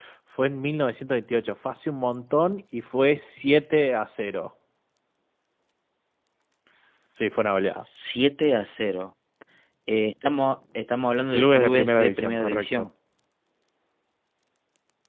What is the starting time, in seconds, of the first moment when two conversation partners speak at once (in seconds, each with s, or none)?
11.3 s